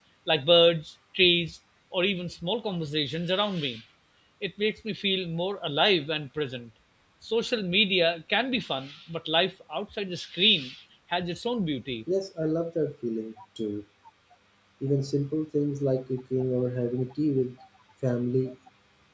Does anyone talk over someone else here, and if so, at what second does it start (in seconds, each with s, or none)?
none